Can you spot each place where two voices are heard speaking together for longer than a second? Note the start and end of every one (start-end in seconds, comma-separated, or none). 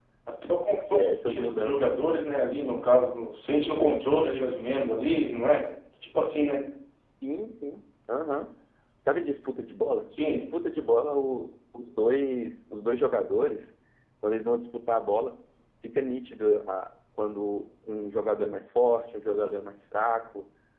0.7-2.0